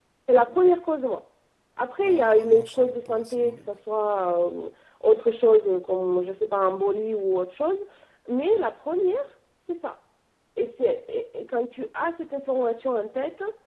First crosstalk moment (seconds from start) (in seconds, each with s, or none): 2.0 s